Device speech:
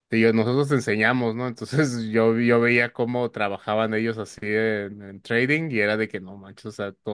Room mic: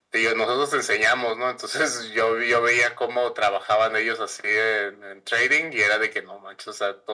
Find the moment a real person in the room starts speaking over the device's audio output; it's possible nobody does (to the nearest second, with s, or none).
none